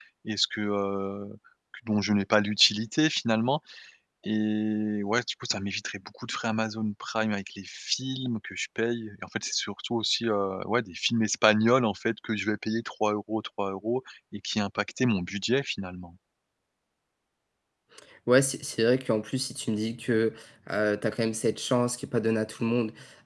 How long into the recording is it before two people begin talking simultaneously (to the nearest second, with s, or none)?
none